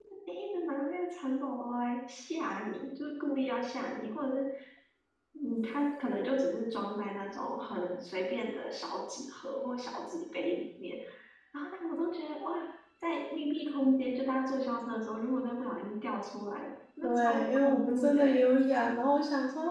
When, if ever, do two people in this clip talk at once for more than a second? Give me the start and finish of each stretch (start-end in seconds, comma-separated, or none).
17.0-18.4